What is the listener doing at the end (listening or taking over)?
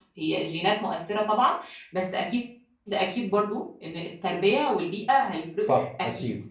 taking over